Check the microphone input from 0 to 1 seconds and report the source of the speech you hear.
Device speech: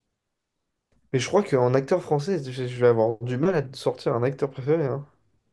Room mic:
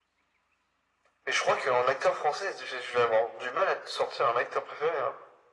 neither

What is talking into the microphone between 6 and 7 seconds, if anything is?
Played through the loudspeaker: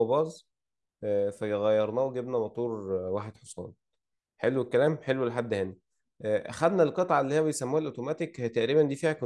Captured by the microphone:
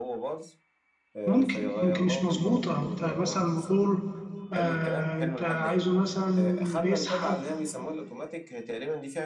both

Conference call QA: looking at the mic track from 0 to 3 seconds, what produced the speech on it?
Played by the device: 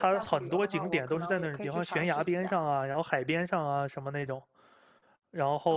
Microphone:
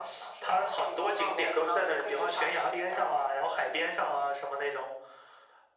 echo only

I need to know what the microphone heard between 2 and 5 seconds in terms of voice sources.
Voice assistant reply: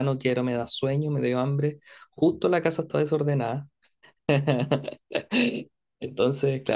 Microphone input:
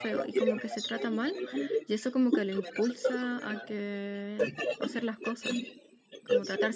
both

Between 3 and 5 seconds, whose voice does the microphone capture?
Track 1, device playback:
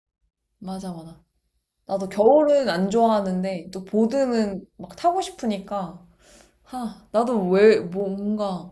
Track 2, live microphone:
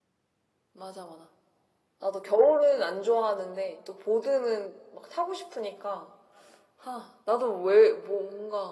echo only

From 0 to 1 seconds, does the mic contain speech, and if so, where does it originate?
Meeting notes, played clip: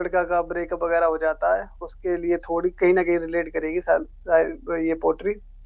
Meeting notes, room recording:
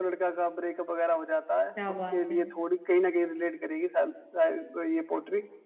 echo only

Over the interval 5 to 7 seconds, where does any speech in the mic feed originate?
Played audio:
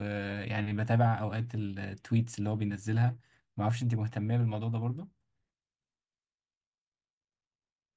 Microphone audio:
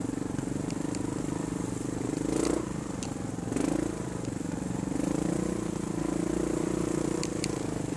neither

